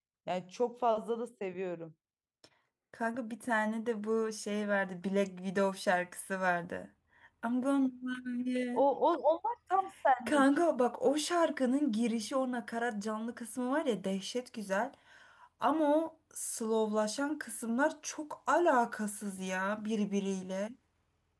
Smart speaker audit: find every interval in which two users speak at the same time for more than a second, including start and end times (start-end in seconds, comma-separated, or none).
none